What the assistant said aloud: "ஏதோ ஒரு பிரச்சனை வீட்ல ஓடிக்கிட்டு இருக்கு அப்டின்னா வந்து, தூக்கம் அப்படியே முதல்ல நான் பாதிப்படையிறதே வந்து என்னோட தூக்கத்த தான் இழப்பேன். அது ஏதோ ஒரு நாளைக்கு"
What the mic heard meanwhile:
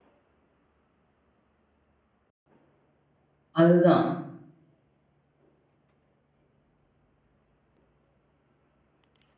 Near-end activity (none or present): present